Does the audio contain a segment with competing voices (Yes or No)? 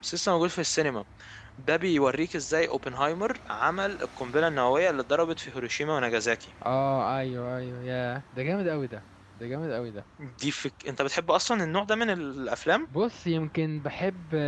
No